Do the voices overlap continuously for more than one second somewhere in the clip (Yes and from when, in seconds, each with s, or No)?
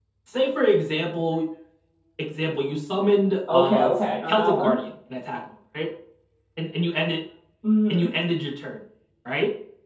Yes, from 3.5 s